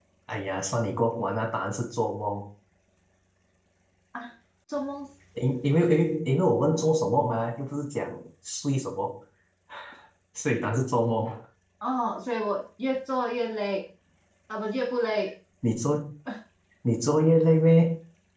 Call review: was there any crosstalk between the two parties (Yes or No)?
No